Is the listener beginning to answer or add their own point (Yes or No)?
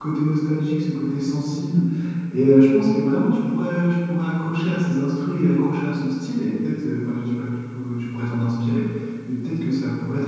No